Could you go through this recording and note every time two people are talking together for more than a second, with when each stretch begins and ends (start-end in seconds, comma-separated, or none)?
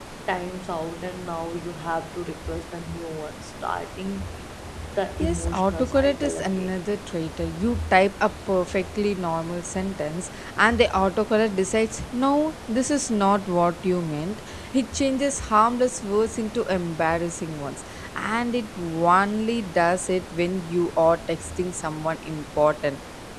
5.2-6.8